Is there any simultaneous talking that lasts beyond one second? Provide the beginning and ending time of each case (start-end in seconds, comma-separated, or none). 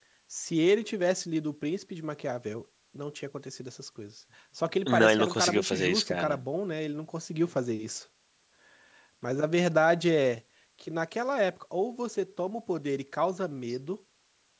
4.9-6.4